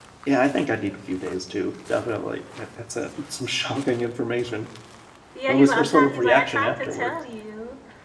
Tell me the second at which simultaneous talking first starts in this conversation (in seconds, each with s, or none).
5.5 s